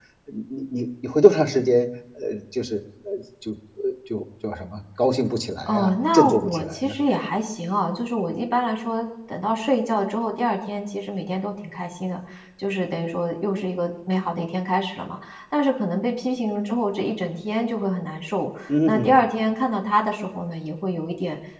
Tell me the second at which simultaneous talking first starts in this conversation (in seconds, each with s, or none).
5.7 s